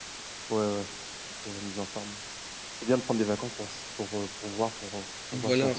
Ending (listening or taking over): taking over